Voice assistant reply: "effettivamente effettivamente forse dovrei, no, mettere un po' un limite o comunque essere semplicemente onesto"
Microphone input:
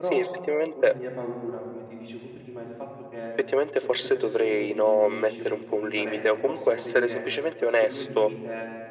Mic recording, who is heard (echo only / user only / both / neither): both